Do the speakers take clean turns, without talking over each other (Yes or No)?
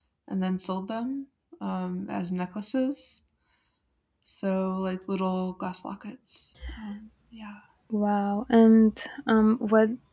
Yes